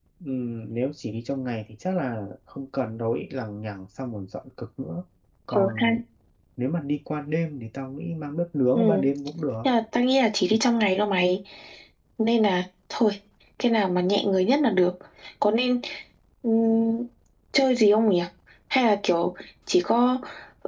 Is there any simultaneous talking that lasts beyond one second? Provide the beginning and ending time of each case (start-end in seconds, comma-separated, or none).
none